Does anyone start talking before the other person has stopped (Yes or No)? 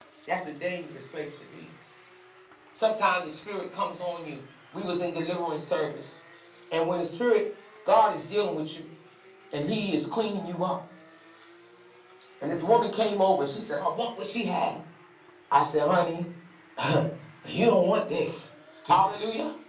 No